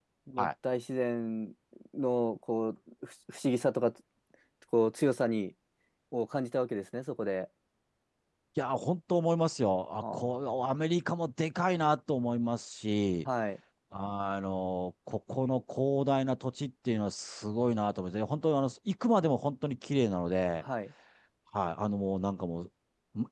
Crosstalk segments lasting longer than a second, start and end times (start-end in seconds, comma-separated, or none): none